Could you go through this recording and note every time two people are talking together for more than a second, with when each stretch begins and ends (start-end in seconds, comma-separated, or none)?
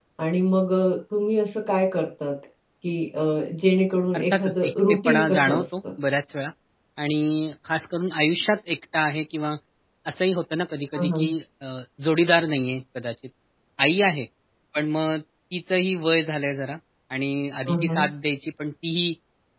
4.2-5.6